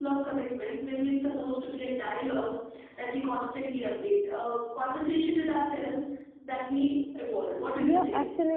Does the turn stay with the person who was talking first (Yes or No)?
No